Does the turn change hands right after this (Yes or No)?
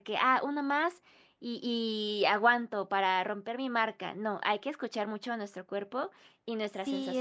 Yes